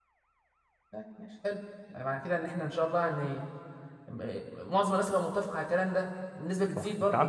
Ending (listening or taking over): taking over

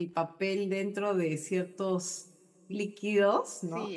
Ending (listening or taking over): taking over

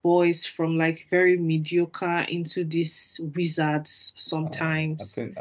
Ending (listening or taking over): taking over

